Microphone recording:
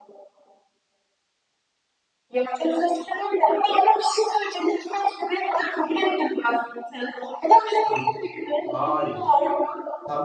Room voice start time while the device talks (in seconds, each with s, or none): 7.9 s